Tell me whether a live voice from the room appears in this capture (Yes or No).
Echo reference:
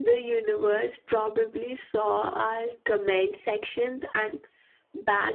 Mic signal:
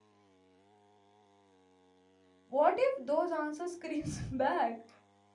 Yes